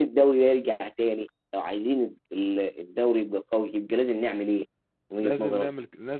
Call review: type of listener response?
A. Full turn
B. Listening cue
A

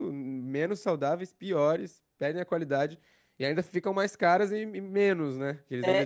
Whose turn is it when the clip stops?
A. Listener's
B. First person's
A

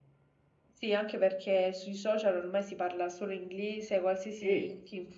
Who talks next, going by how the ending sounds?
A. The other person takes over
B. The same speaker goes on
B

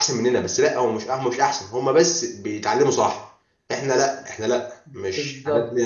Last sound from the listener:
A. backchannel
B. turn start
B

